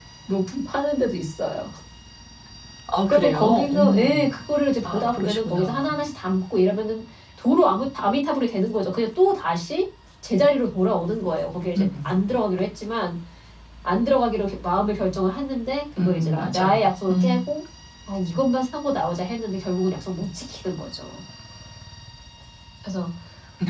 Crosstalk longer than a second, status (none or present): present